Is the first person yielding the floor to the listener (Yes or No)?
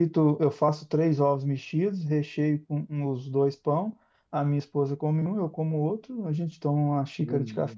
No